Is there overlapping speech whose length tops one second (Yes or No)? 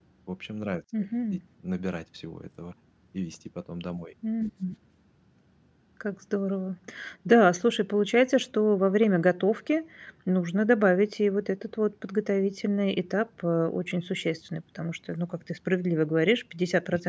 No